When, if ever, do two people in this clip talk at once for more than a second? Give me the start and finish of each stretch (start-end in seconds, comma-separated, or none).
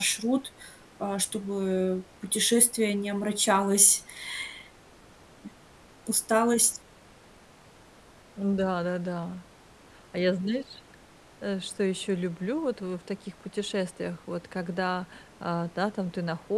none